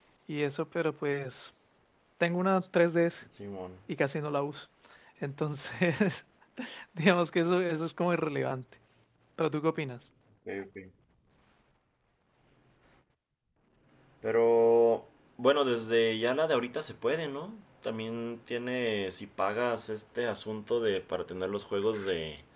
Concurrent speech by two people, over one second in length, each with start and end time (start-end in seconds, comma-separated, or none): none